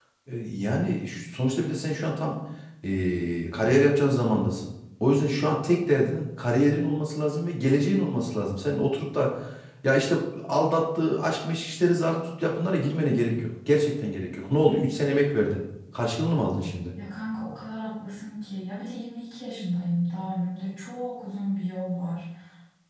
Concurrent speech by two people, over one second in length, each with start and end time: none

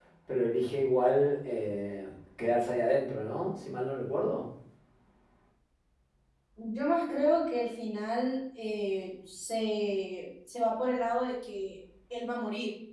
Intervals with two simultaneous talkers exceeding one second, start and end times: none

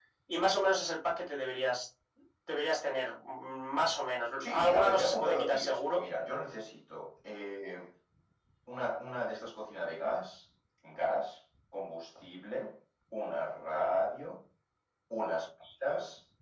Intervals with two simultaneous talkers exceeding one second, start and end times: 4.4-6.0

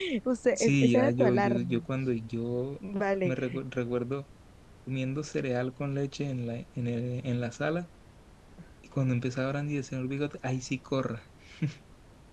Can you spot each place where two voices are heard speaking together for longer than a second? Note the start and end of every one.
0.6-1.8

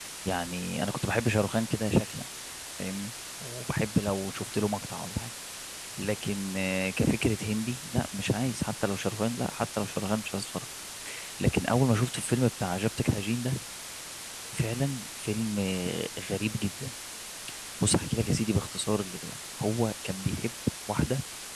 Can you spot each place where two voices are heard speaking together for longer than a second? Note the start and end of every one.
none

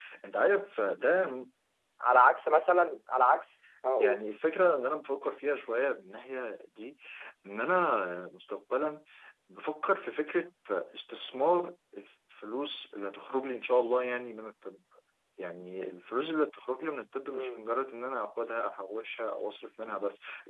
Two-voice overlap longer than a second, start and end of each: none

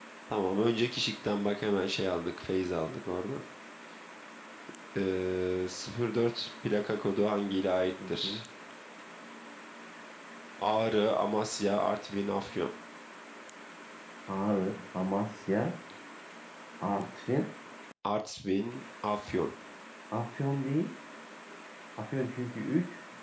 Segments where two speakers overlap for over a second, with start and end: none

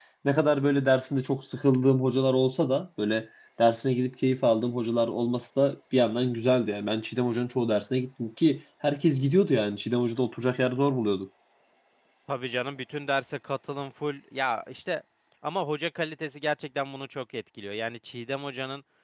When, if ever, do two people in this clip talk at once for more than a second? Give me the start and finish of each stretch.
none

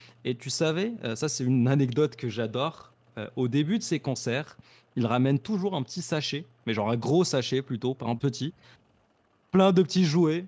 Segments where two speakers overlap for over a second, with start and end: none

